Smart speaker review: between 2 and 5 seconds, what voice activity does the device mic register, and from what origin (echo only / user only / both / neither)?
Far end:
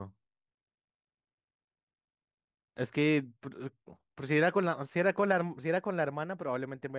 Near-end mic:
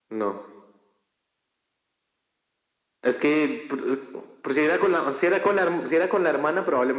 echo only